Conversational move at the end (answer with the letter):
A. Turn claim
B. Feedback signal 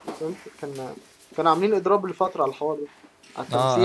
A